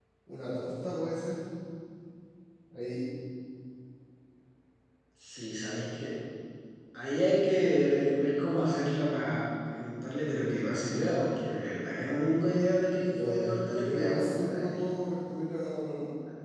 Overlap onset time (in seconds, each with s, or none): 13.1 s